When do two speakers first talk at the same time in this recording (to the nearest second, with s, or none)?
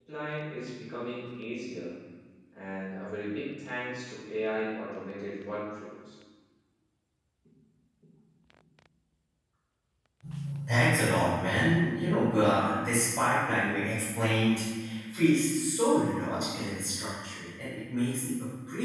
none